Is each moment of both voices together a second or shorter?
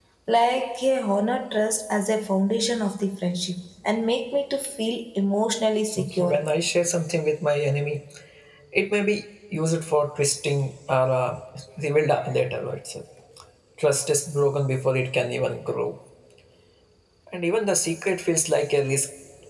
Yes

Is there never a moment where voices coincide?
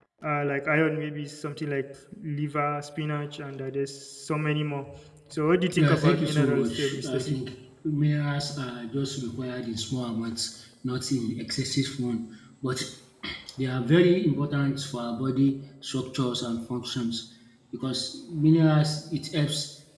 No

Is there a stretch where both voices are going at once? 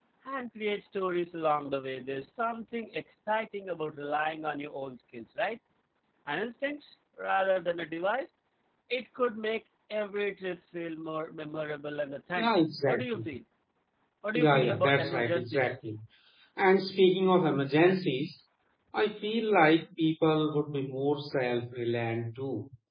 Yes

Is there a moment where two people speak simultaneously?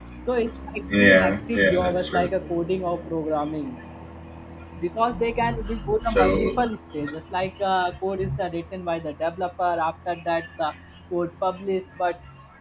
Yes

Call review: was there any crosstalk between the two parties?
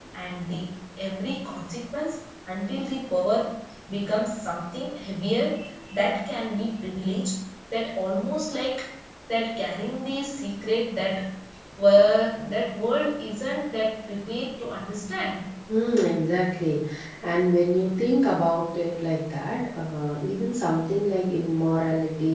No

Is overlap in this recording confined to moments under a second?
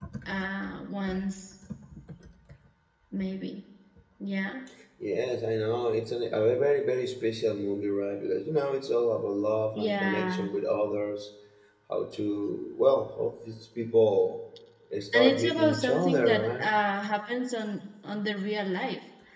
No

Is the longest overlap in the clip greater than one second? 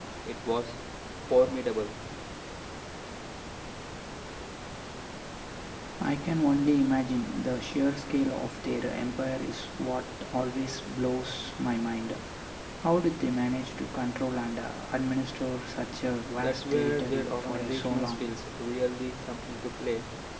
Yes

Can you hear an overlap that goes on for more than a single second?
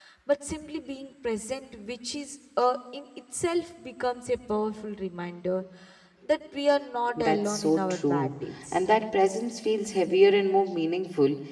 Yes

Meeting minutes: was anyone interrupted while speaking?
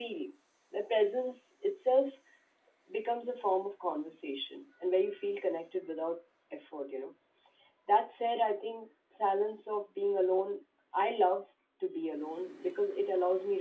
No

